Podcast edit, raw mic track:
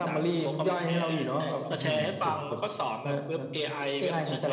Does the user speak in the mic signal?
Yes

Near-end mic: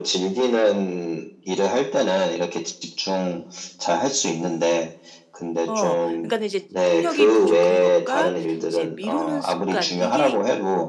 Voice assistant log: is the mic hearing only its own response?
No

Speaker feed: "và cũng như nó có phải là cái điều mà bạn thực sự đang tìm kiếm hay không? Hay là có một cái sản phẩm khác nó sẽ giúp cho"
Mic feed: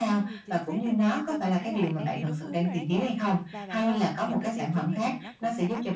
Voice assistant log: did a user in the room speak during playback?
Yes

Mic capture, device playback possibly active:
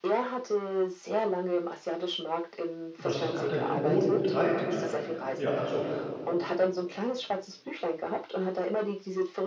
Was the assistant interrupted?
Yes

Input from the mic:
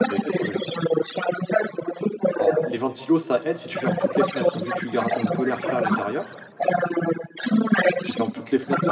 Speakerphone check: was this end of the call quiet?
No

